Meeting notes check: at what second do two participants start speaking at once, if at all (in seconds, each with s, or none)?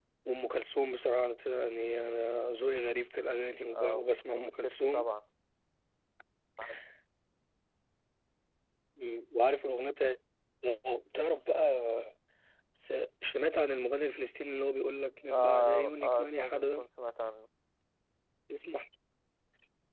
3.7 s